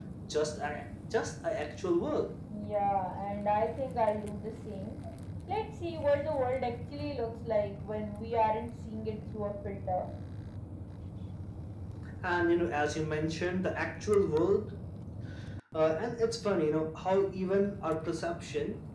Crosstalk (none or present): none